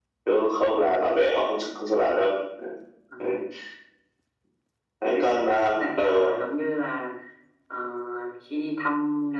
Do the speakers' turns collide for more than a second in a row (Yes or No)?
Yes